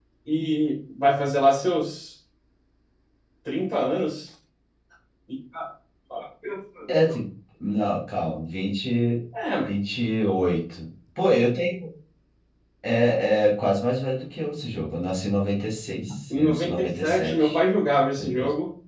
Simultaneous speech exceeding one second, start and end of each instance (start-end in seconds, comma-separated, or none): 16.4-17.6